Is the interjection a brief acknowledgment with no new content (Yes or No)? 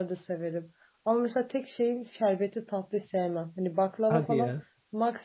Yes